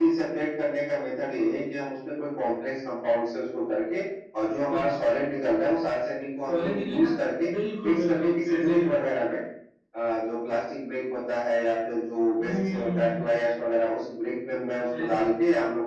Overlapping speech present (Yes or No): Yes